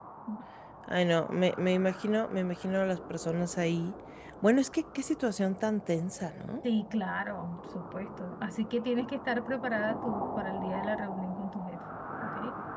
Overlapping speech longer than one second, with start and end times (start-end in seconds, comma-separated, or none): none